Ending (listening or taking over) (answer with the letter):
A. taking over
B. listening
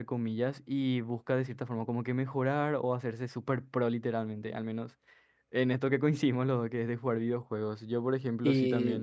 B